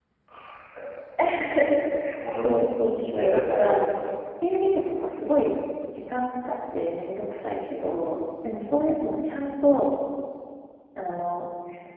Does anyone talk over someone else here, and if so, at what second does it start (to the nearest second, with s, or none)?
2 s